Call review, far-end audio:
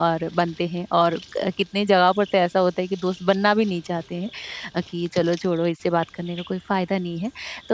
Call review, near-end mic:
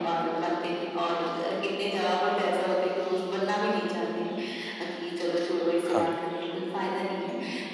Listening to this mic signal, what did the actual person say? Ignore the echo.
हाँ।

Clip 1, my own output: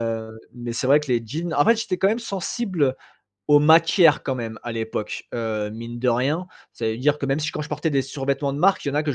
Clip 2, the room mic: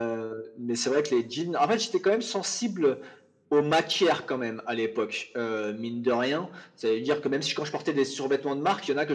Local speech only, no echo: none

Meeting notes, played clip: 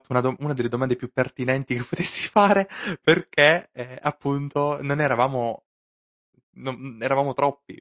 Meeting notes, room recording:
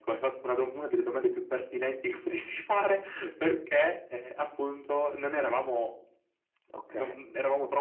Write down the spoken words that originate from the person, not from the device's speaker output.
Okay.

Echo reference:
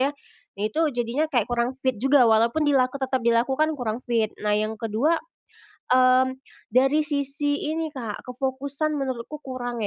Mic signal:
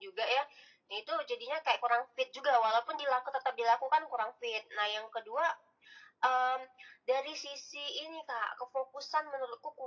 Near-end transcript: none

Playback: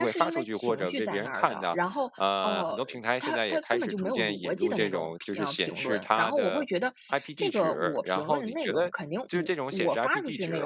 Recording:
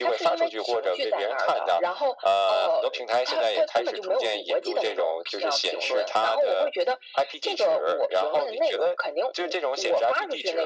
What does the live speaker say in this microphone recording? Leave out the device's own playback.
none

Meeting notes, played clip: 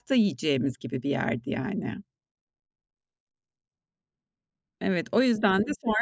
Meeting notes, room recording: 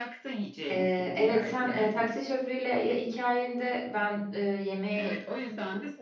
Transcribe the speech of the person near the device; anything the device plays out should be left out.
Eee, evet, sen, eee, taksi şoförüyle hi hikayende, ben, eee, yemekten

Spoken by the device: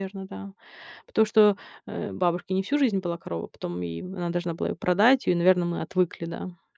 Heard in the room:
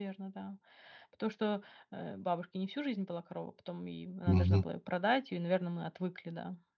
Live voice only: Мгм.

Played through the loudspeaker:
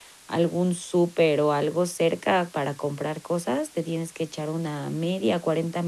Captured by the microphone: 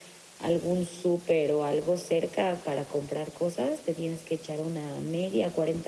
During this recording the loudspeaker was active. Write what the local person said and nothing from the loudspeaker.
none

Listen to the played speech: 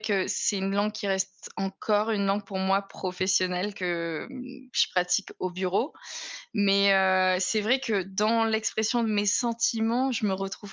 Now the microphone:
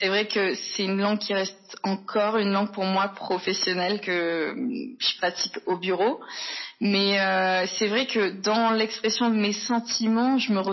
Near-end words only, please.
none

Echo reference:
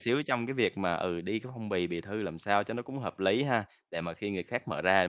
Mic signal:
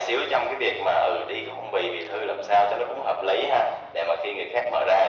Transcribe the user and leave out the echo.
none

